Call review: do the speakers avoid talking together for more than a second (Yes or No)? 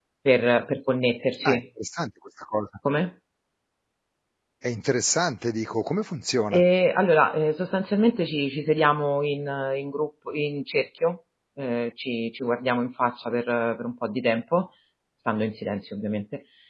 Yes